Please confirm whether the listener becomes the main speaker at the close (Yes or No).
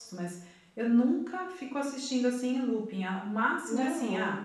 No